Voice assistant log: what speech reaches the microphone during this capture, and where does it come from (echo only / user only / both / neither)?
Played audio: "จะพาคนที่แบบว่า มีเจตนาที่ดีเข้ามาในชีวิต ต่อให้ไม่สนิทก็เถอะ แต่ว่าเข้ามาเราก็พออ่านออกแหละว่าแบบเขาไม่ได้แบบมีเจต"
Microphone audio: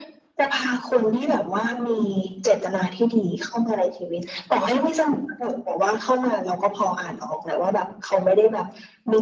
echo only